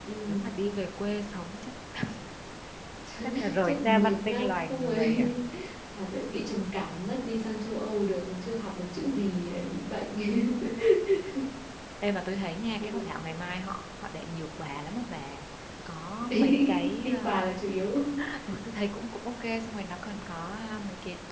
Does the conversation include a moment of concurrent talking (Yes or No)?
Yes